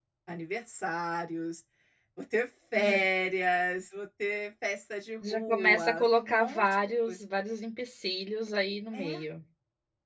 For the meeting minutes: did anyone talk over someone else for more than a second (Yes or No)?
Yes